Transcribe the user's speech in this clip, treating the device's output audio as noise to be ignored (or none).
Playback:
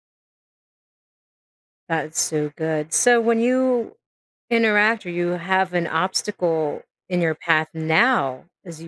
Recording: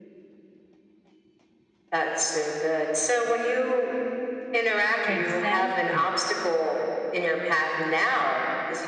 Exactly.